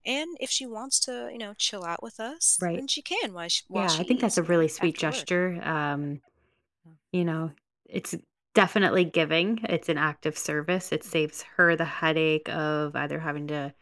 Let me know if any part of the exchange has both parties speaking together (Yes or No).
Yes